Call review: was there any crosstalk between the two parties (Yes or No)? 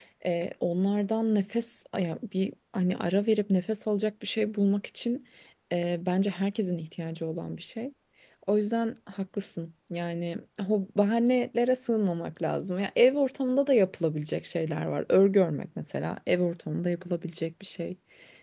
No